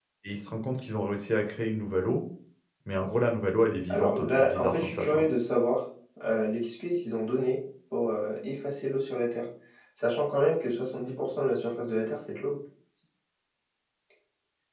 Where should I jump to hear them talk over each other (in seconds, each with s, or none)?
3.9 s